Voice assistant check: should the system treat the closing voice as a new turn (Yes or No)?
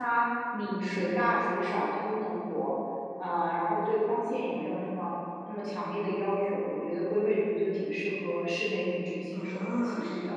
Yes